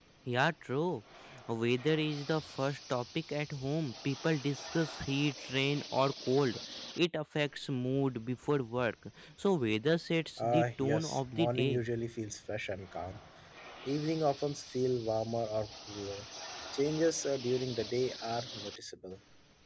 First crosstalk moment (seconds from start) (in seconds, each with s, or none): 10.4 s